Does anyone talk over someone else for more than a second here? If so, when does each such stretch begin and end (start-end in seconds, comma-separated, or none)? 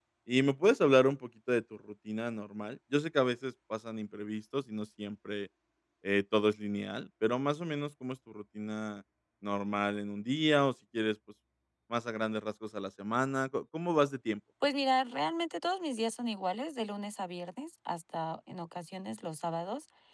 none